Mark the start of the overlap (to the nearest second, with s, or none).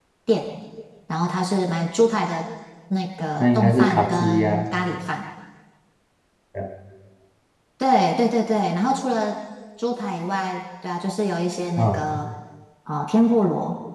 3 s